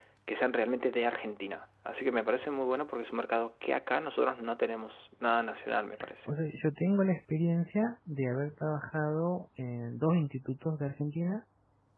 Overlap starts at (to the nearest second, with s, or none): none